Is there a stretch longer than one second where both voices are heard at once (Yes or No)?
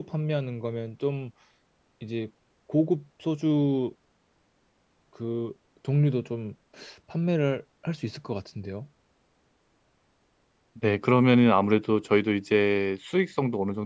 No